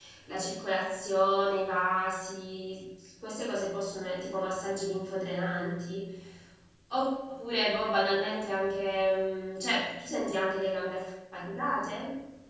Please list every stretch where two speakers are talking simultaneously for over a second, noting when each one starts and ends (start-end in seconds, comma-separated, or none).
none